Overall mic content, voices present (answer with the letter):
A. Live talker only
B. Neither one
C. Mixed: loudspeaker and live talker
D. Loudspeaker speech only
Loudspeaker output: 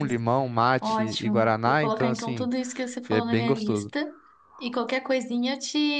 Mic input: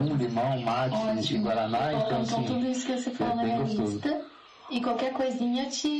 D